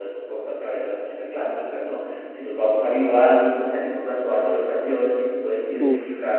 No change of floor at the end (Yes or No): Yes